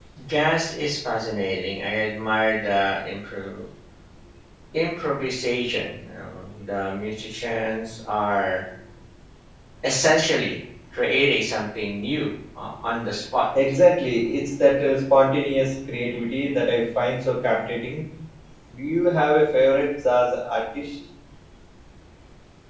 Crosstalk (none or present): none